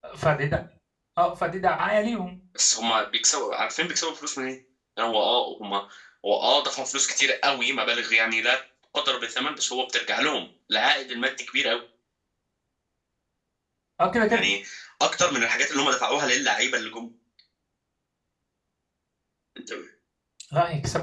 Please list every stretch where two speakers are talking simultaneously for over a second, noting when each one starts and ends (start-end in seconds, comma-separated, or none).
none